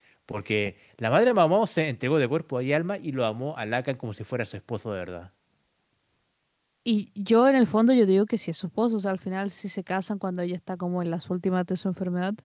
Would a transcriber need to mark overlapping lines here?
No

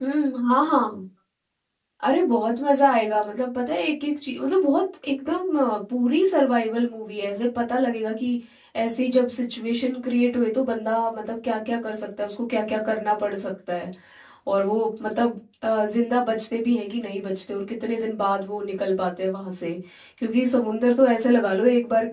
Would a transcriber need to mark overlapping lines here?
No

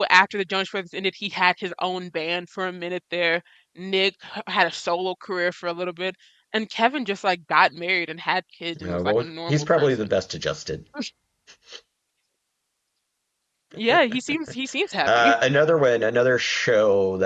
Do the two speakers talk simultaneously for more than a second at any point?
Yes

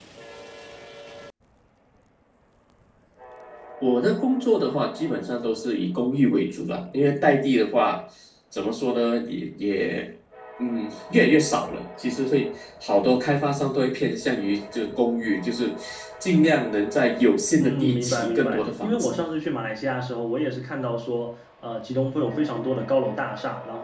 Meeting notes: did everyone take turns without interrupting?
No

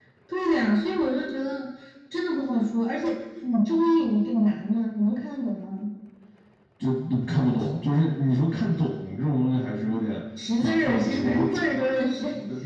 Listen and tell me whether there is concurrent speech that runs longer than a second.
Yes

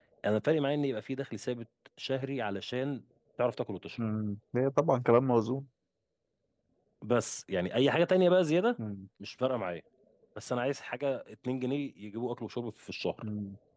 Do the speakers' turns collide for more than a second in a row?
No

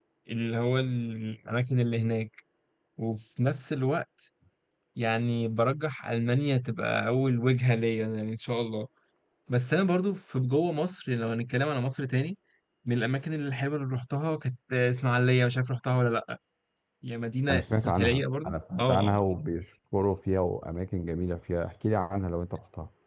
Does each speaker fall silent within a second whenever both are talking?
No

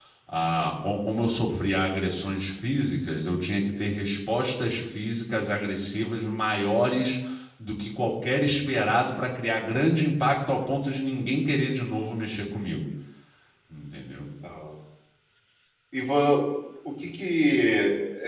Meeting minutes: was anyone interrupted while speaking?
No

